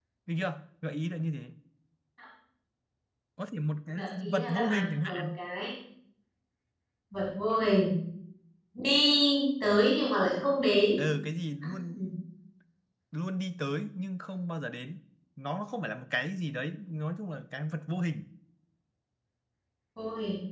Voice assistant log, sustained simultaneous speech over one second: present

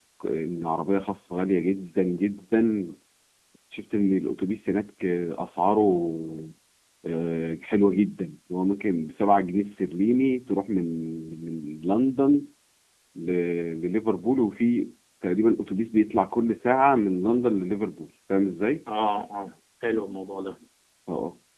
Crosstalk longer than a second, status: none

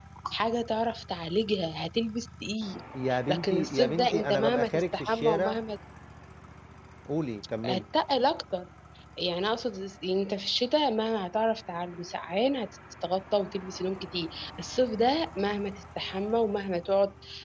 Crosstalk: present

